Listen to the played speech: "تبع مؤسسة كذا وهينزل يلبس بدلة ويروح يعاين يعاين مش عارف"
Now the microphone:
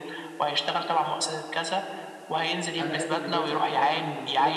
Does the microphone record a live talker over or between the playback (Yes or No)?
Yes